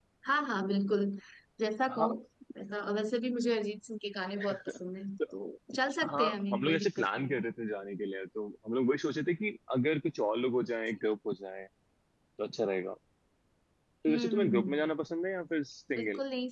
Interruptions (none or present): present